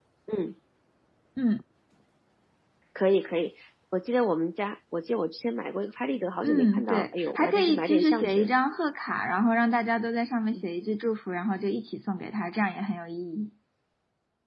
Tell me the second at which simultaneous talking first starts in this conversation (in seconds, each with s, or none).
6.4 s